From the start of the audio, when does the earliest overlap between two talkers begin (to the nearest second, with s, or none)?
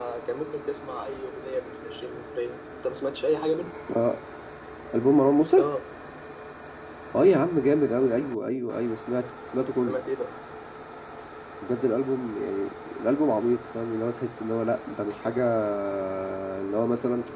none